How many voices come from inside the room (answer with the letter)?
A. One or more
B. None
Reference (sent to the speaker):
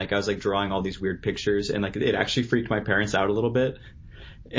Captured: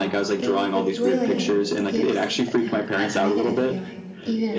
A